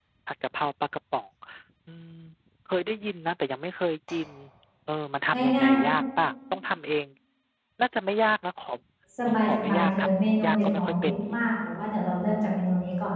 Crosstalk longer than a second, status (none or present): present